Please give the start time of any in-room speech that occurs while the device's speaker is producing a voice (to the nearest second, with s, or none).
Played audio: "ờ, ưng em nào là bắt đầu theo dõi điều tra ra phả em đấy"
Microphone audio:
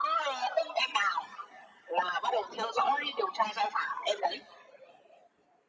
none